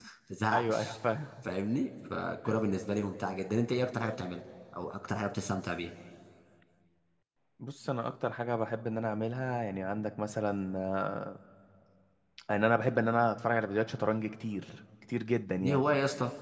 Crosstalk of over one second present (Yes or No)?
No